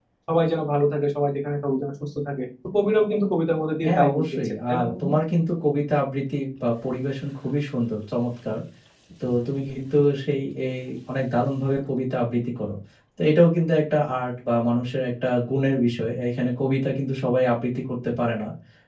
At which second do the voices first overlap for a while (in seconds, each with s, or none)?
3.8 s